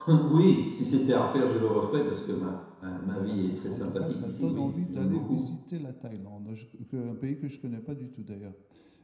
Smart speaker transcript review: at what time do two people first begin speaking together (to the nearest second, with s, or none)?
3 s